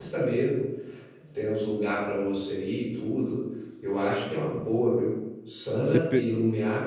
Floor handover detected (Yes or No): No